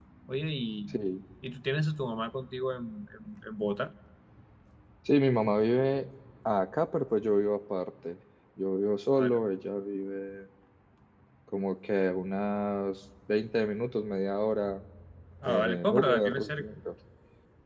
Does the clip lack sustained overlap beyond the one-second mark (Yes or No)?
No